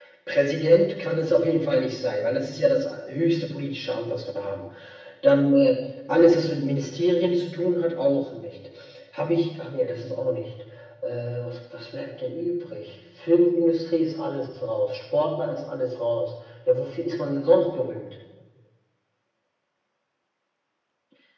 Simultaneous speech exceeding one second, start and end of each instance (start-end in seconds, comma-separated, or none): none